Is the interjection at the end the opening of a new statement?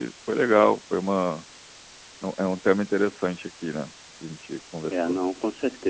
Yes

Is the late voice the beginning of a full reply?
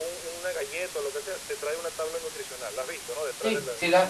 Yes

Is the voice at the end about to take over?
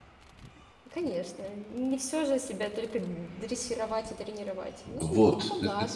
Yes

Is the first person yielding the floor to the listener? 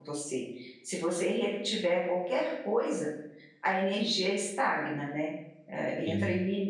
No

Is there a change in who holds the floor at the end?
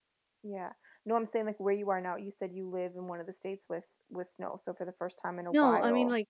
Yes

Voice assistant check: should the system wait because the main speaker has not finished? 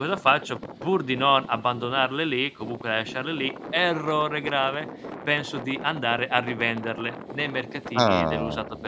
Yes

